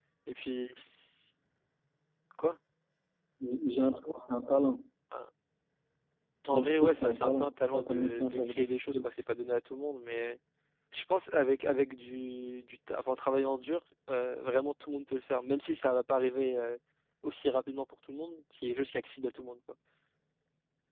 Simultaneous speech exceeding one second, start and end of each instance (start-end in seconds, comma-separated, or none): 6.5-9.1